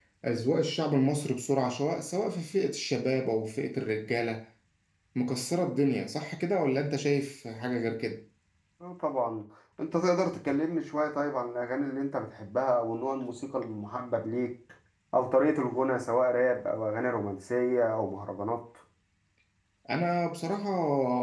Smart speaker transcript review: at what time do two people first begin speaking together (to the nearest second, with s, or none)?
none